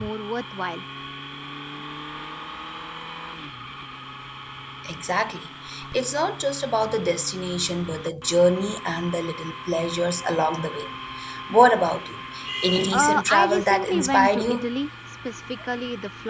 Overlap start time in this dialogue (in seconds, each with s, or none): 12.9 s